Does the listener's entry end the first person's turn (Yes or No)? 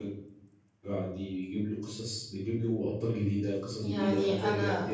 No